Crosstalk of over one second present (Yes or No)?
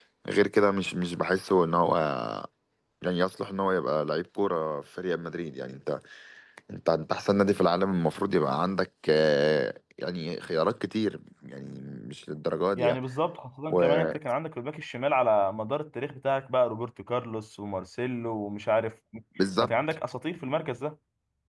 No